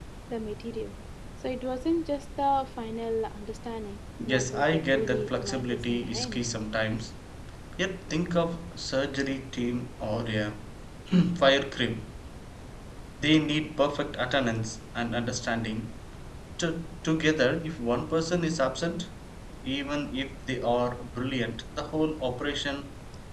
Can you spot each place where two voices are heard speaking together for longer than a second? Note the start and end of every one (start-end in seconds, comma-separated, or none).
4.2-6.4